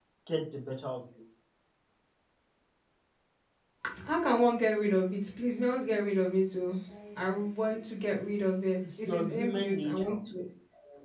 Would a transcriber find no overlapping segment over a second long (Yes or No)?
No